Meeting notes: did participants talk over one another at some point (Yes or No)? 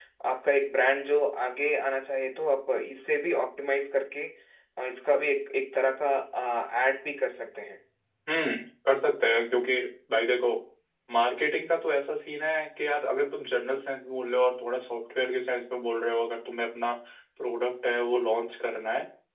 No